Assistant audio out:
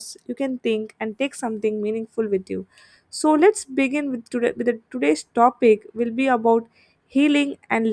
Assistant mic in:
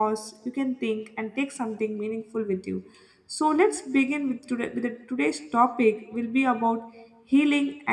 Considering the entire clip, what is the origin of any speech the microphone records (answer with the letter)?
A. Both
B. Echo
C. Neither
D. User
B